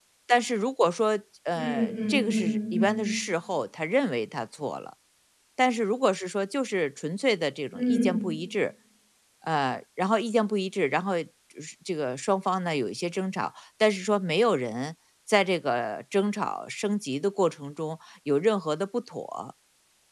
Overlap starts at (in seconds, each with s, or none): 1.6 s